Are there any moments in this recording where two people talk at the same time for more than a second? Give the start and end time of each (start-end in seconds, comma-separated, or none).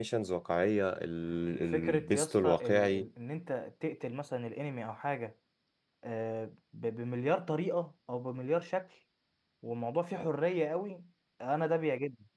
1.7-3.0